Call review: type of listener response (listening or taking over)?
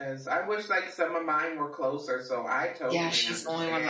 taking over